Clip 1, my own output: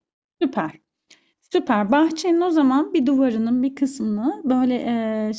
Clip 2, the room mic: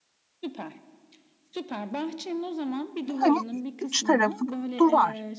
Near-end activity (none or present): present